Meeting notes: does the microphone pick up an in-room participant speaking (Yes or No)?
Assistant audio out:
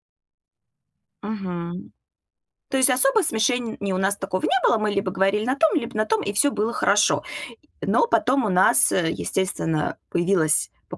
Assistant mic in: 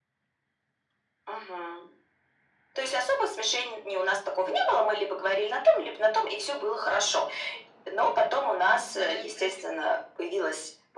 Yes